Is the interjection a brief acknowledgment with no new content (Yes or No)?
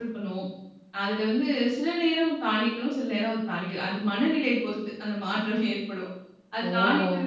Yes